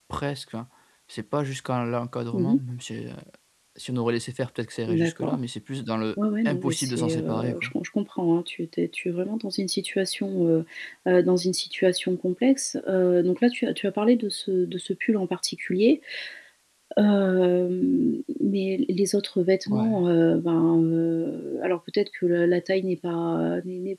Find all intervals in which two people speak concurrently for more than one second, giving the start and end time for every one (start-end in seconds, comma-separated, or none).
6.4-7.7